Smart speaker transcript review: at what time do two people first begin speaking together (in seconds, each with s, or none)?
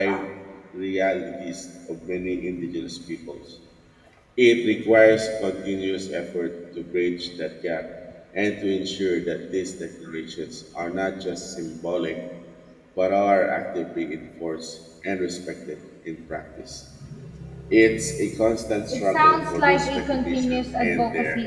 18.9 s